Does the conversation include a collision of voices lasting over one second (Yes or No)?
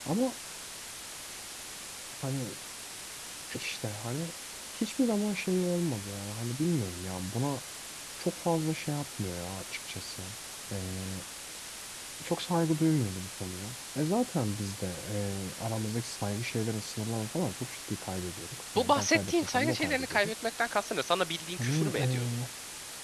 Yes